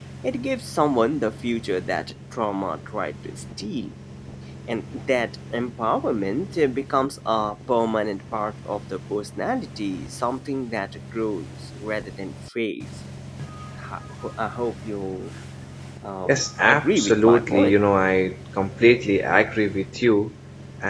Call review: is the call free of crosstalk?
No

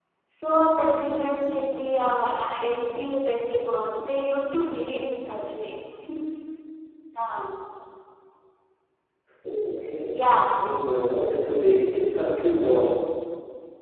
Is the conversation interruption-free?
Yes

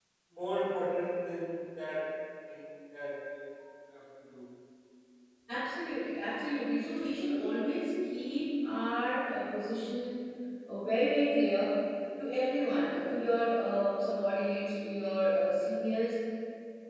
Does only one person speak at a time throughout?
Yes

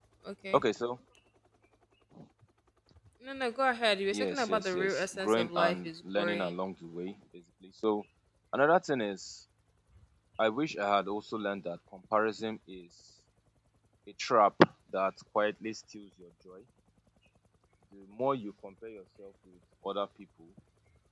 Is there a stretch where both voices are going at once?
Yes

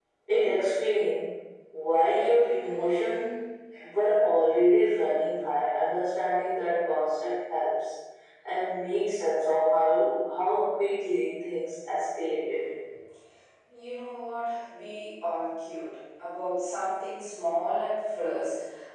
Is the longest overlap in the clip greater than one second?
No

